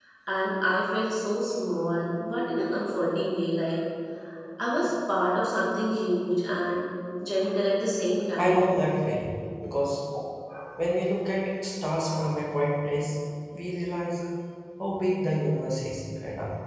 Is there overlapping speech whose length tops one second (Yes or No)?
No